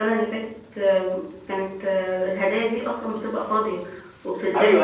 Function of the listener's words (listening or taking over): taking over